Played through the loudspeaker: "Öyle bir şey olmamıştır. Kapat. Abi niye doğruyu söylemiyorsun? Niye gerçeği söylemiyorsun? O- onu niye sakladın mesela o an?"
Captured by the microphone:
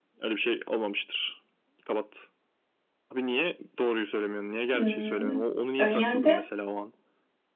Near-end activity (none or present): present